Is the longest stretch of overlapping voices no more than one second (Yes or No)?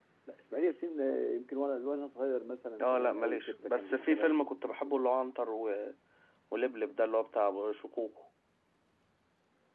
No